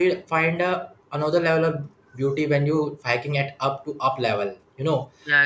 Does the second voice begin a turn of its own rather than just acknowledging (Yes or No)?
No